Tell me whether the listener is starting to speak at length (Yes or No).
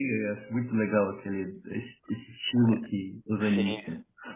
Yes